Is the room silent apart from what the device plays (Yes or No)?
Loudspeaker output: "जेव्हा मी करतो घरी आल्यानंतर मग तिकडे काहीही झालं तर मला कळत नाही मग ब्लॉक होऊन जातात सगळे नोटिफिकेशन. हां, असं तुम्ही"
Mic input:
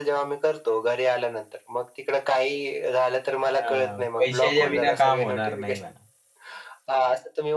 No